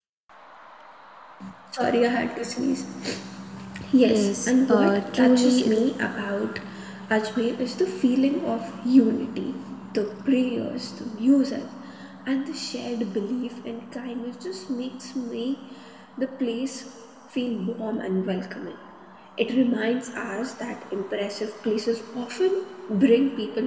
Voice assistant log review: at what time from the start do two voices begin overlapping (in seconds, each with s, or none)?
4.0 s